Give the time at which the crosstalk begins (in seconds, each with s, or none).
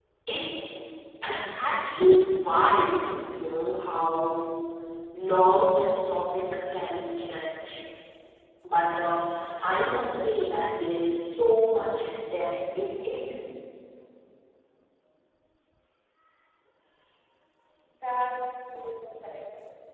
none